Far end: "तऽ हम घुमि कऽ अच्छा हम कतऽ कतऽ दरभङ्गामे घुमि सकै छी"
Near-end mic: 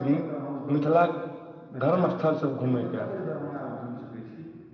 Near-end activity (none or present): present